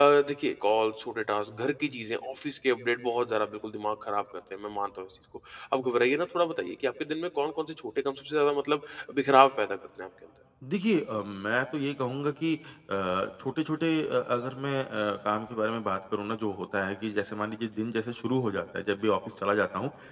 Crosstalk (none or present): none